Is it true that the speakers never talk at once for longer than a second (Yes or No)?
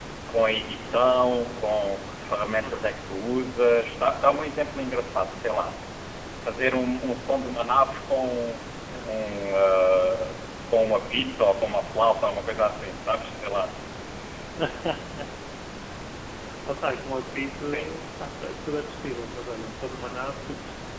Yes